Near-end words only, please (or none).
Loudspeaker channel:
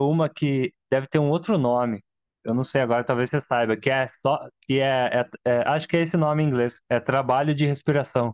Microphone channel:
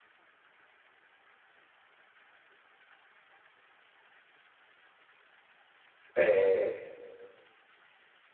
É,